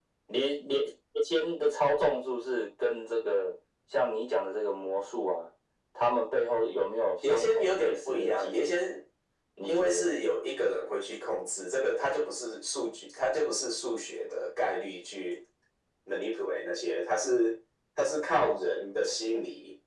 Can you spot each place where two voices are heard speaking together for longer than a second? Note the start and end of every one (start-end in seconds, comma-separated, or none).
7.3-8.8